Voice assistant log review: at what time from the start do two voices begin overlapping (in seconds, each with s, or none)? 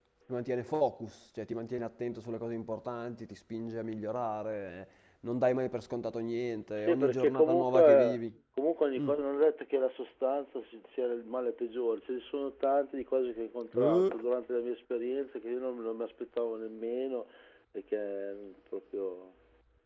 6.8 s